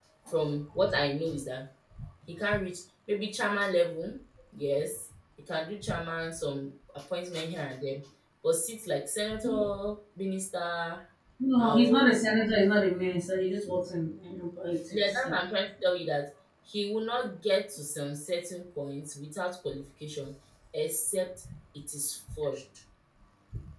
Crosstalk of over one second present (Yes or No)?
No